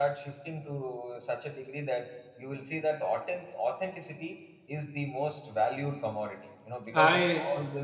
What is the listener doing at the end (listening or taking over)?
listening